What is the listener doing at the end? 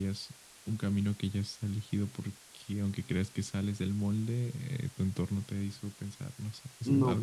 taking over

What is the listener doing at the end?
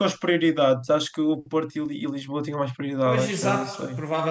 taking over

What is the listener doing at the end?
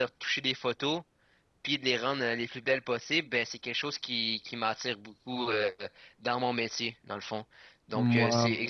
listening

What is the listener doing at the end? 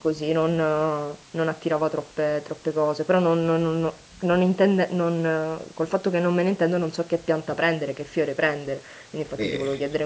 listening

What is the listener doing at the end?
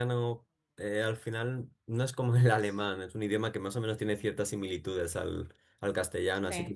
listening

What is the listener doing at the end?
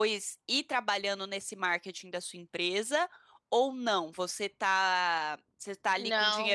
listening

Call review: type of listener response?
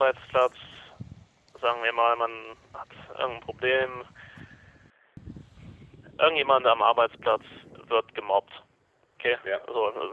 listening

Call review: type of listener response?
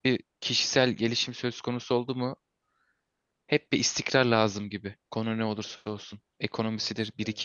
listening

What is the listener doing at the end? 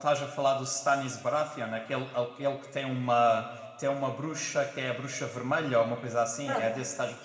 taking over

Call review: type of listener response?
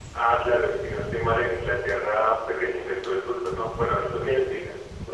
taking over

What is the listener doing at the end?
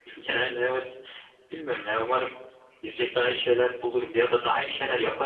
taking over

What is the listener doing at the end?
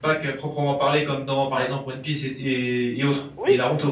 taking over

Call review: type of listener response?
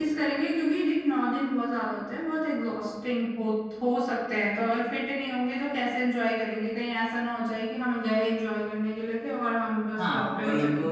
taking over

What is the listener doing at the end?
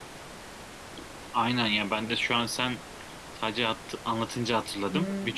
taking over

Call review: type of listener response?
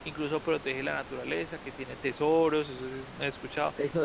taking over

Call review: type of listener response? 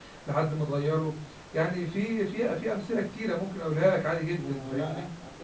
taking over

